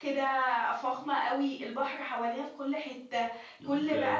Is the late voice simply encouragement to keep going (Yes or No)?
Yes